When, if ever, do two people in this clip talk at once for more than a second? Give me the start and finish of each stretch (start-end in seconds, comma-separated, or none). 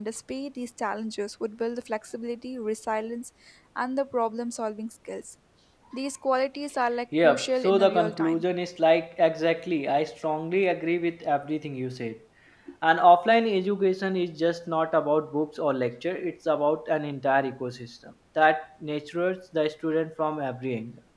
7.2-8.4